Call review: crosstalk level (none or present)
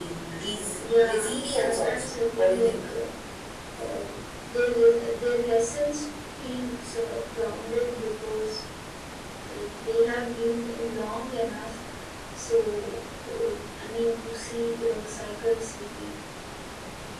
present